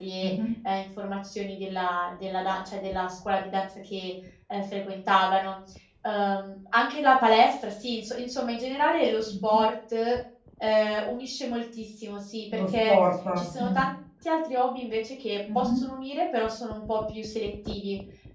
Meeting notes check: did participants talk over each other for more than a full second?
No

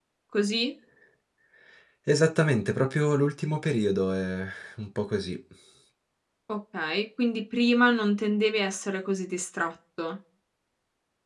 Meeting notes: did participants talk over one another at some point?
No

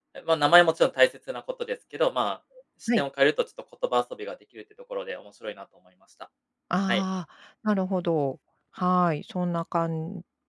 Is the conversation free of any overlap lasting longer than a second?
Yes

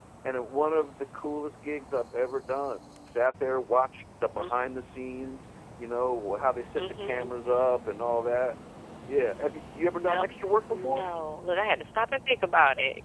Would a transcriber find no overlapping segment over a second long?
Yes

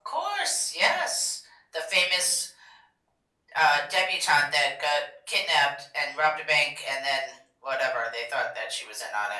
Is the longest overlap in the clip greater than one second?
No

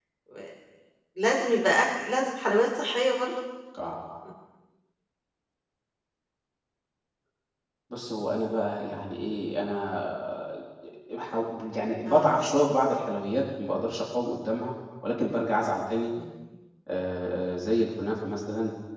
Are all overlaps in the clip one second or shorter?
Yes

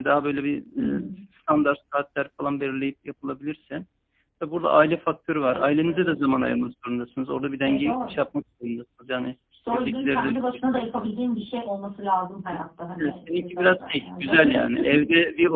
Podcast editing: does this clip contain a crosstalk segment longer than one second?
Yes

